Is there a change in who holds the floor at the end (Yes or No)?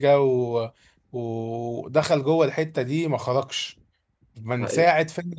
No